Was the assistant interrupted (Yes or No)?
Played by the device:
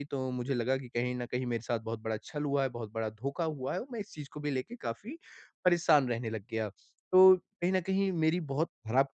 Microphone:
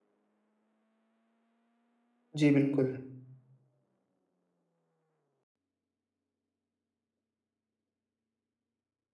Yes